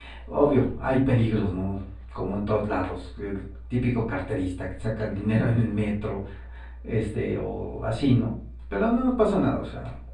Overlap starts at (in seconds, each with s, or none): none